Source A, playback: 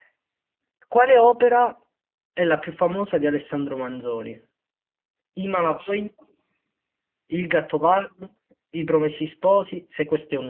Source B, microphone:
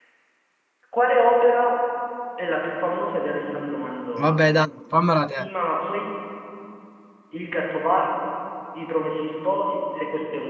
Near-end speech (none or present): present